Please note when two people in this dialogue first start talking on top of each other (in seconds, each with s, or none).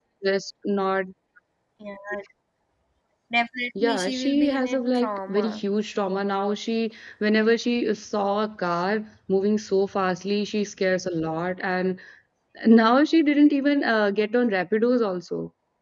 3.8 s